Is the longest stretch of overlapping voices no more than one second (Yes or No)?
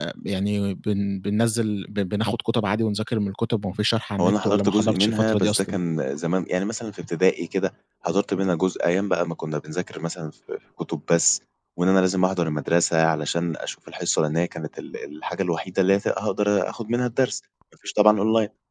No